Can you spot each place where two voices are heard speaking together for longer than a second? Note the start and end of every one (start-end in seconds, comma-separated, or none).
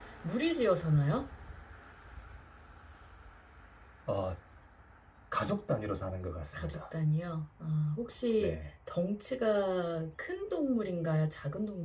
none